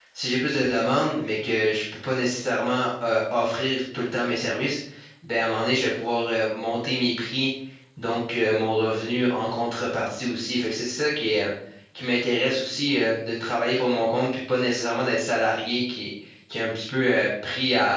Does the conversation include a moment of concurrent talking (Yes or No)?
No